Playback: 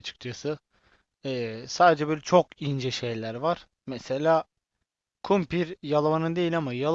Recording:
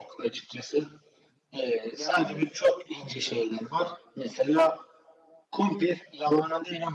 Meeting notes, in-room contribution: present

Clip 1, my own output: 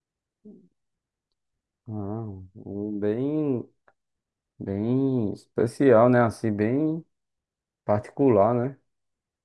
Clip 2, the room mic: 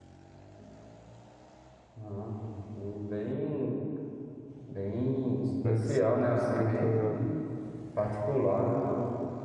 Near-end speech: present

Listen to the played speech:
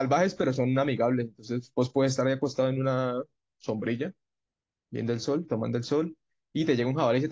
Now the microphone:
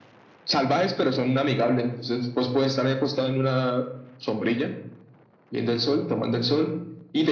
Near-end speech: none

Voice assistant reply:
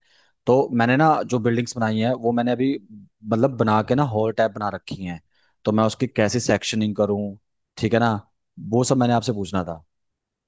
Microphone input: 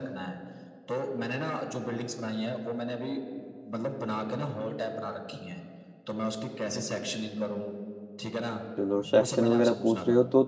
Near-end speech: present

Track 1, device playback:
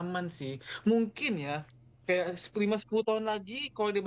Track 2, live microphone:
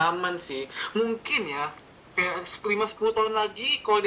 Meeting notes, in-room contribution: none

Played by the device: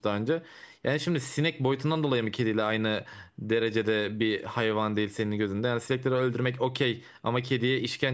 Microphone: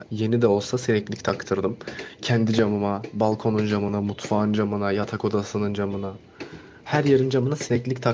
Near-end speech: present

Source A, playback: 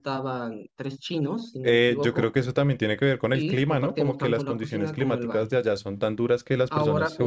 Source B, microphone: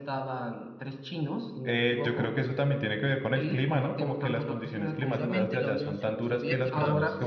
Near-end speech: present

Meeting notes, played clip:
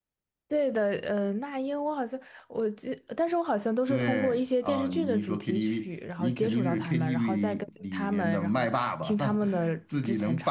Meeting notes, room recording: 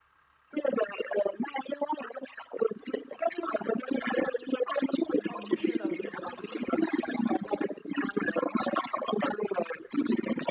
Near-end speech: present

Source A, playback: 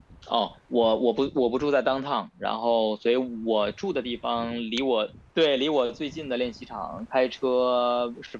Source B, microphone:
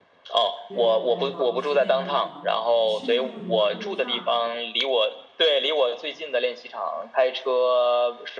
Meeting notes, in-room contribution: present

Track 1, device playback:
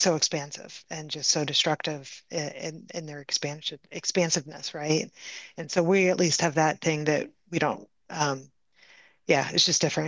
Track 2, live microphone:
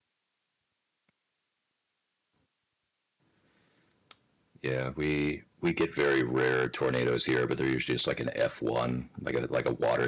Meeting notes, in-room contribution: present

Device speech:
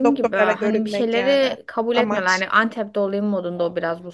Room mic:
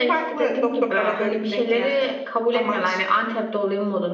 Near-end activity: none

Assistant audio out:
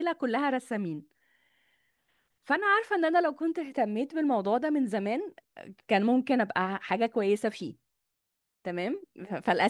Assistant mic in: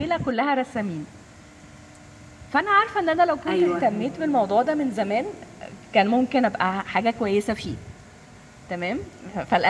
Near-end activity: present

